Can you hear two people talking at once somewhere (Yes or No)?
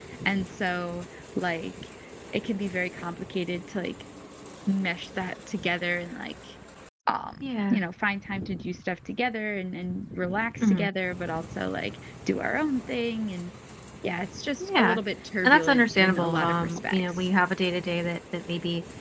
Yes